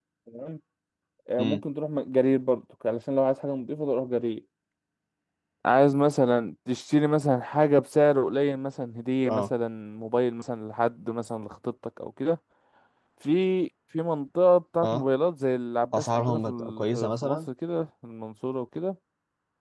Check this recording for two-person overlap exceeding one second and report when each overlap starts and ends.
16.0-17.4

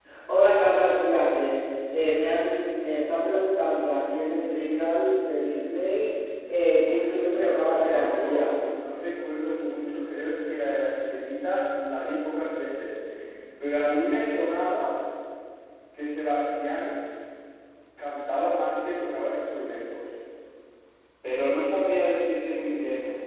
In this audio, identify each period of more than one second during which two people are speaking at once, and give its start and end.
6.8-8.5

